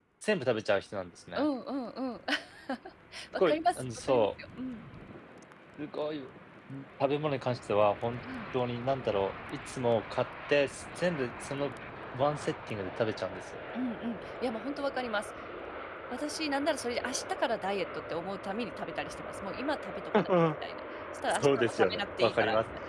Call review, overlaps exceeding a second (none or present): present